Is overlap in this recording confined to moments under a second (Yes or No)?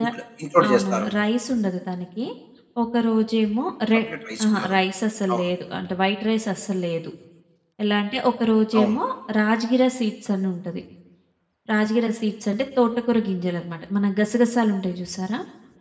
Yes